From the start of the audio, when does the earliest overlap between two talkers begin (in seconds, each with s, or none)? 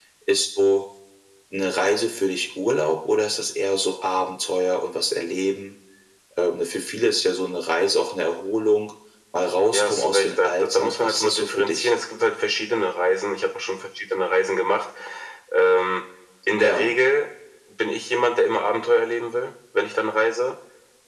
9.7 s